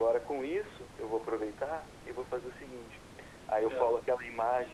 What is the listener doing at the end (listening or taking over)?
listening